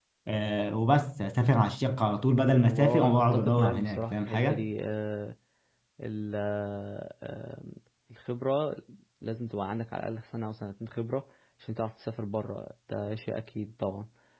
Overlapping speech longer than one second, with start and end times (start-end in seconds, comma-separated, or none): 2.7-4.7